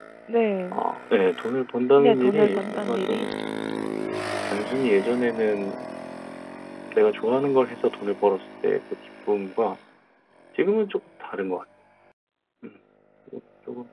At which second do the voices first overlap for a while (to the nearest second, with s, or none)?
2 s